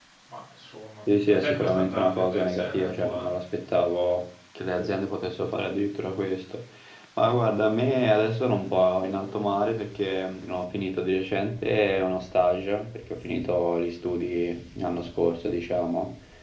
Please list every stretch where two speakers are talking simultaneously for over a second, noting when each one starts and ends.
1.3-3.3

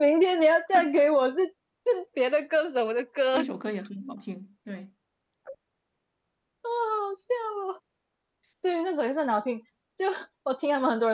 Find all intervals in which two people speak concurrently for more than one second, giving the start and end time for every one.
none

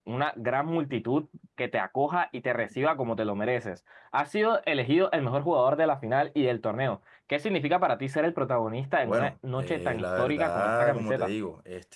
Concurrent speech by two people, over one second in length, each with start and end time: 9.0-11.3

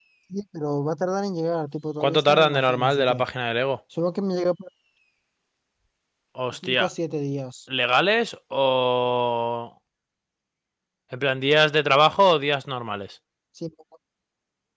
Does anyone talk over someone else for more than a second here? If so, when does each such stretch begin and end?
2.0-3.2

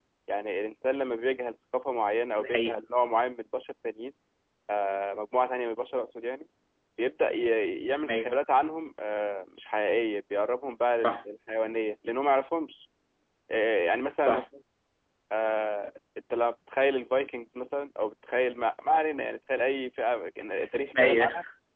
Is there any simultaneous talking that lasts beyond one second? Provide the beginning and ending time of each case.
none

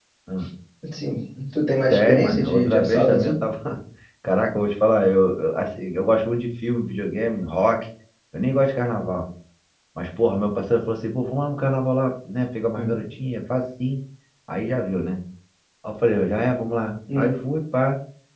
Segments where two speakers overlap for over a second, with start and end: 1.9-3.4

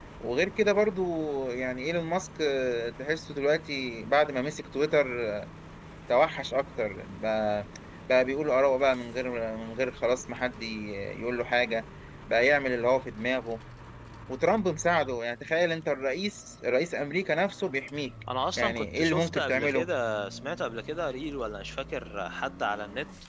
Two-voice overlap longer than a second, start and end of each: 18.6-19.9

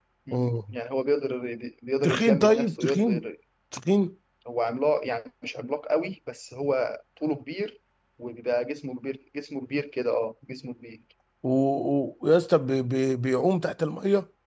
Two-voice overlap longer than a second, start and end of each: 2.0-3.2

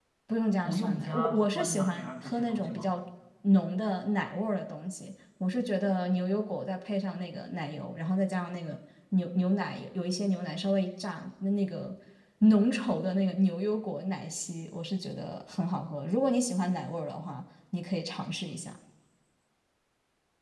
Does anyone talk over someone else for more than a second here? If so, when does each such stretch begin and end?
0.7-2.9

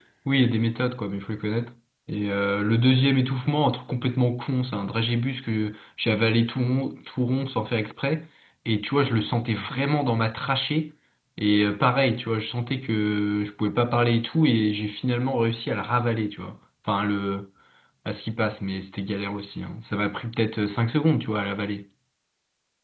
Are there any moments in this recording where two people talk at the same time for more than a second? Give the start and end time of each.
none

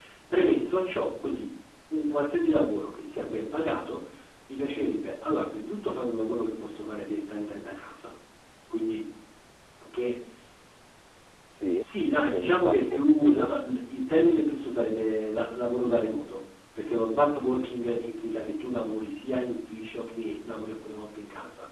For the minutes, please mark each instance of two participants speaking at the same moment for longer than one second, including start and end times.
12.3-13.5

